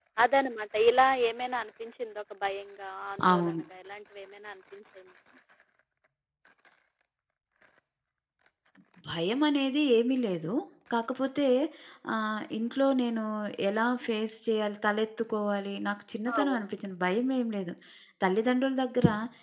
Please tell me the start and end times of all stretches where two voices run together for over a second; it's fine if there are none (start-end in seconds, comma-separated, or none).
none